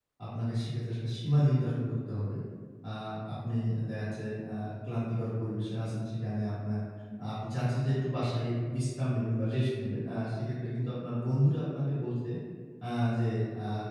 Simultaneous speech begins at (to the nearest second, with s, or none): none